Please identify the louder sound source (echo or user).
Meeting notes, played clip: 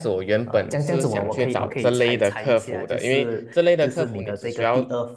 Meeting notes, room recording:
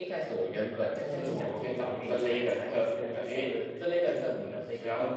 echo